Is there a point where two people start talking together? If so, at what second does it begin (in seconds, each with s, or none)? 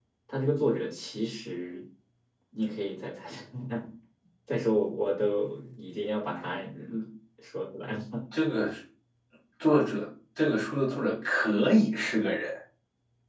none